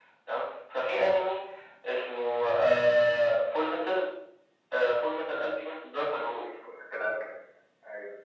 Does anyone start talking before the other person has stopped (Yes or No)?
No